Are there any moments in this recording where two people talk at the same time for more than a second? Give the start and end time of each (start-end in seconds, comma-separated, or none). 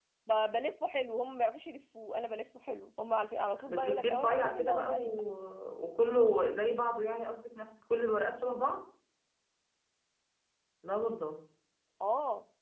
3.7-5.2